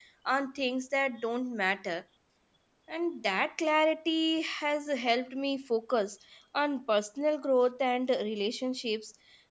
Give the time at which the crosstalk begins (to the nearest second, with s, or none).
none